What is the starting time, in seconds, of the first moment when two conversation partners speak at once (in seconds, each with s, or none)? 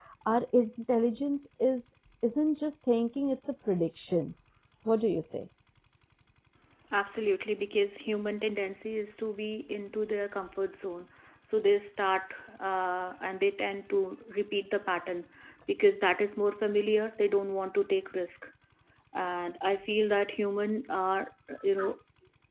none